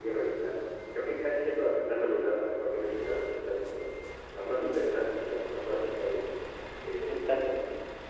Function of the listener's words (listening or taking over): listening